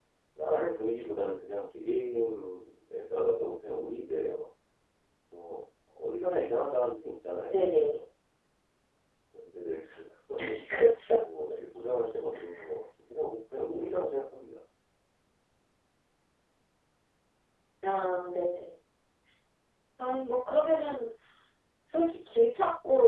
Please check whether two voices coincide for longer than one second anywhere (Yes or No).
No